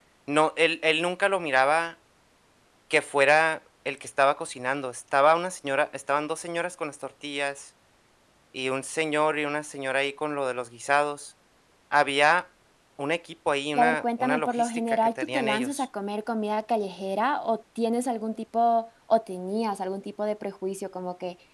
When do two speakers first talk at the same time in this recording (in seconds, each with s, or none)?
13.8 s